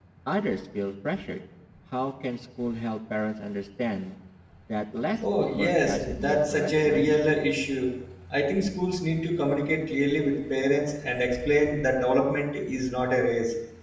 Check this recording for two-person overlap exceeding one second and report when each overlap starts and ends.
5.4-7.2

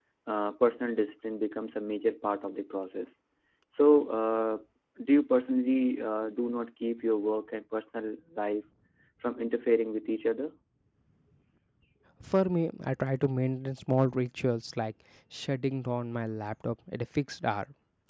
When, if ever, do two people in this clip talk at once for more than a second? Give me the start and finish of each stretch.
none

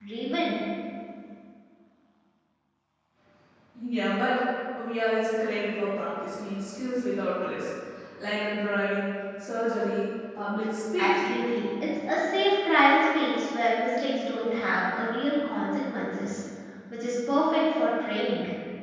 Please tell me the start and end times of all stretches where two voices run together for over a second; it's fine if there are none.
none

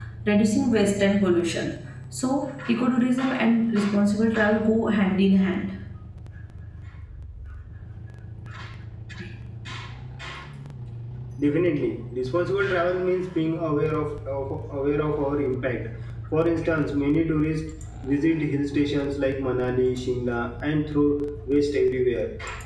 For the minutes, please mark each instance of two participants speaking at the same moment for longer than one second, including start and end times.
none

